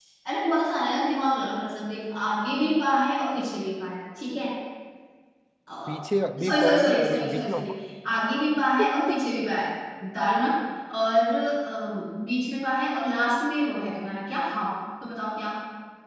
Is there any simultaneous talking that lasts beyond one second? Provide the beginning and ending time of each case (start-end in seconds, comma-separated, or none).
6.4-7.7